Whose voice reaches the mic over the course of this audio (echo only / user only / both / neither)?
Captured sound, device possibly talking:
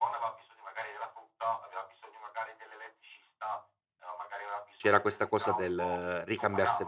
both